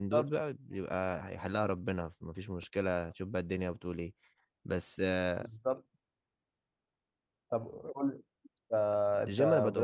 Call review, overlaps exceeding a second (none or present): none